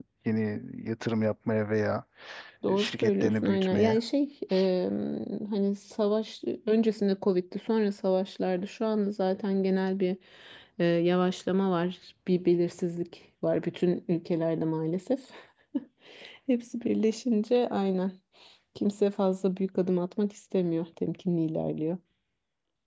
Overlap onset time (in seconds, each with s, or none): 2.8 s